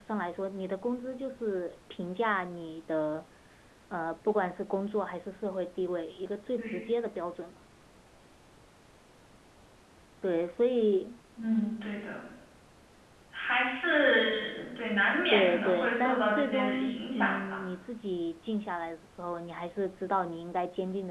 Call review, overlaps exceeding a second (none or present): present